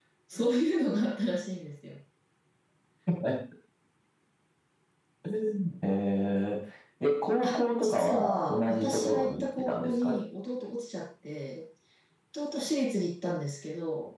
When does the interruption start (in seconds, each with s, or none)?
7.4 s